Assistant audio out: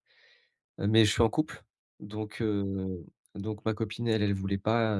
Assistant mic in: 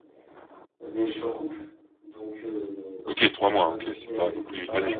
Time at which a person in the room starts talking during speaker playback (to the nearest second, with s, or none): 3 s